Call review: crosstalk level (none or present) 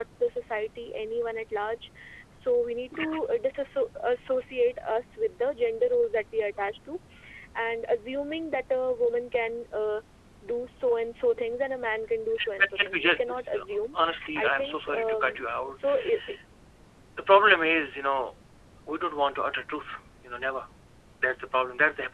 present